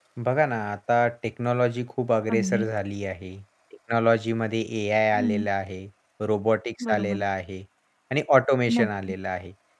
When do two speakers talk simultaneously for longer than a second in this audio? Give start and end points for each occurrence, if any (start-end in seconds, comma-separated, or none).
none